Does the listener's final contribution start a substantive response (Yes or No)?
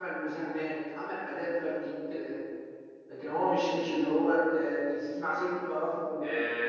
Yes